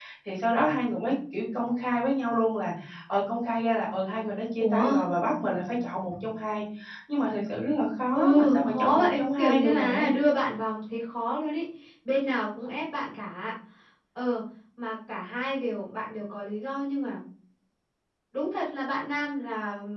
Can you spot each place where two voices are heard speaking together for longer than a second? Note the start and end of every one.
8.1-10.1

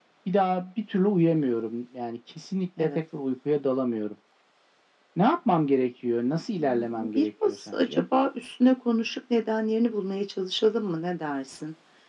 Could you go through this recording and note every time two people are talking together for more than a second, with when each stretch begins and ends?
6.6-8.0

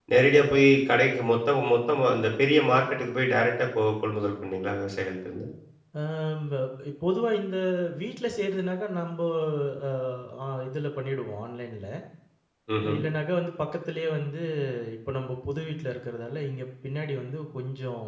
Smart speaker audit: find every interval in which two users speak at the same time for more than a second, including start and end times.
none

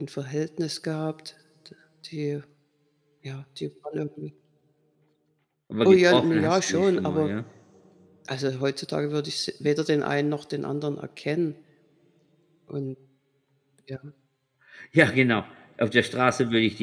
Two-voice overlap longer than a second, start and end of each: 5.8-7.3

